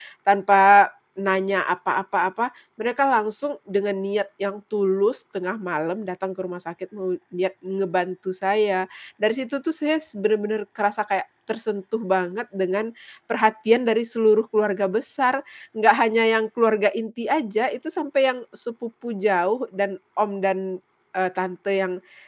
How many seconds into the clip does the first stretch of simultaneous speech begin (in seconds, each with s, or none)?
none